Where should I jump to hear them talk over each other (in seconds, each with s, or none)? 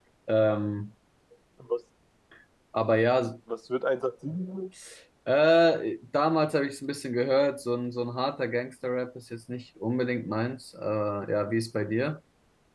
none